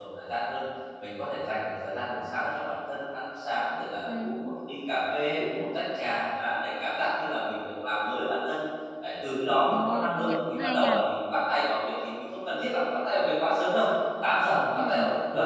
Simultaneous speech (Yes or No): Yes